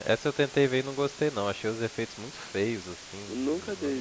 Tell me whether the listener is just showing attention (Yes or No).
No